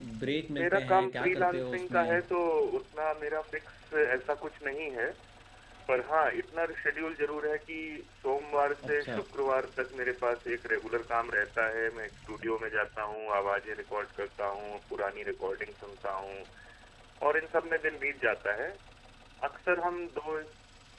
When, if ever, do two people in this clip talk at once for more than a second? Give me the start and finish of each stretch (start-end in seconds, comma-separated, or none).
0.6-2.2